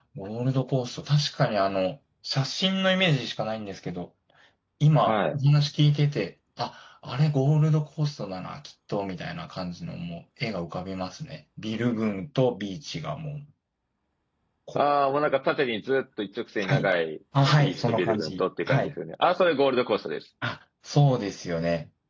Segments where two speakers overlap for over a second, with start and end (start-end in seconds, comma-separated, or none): 17.6-18.9